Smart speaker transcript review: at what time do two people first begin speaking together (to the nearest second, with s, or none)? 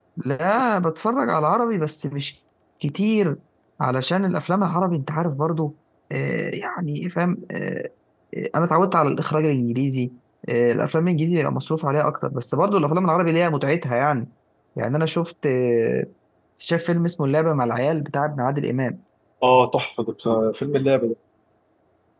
none